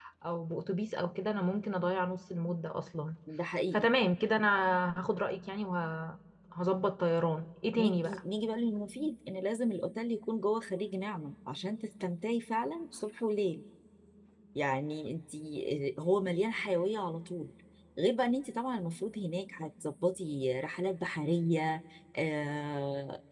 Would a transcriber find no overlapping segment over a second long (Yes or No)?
Yes